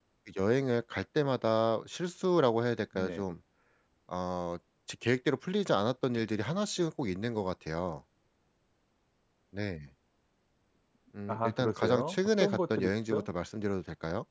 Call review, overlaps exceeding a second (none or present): present